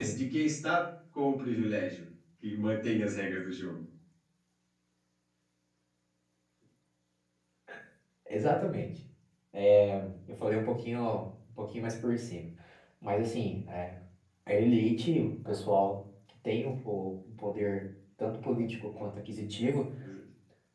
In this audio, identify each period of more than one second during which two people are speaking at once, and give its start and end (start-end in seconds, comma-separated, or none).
none